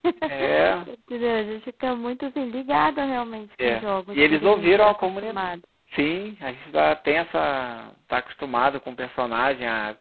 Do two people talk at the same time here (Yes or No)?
Yes